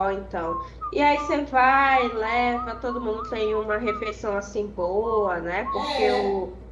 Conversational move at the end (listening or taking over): listening